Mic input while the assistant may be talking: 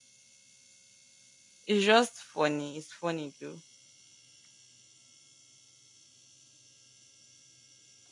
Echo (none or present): none